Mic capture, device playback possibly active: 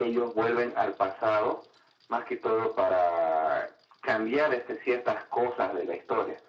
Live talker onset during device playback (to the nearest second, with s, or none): none